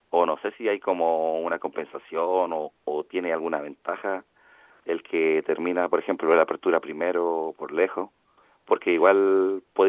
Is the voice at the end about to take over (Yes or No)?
No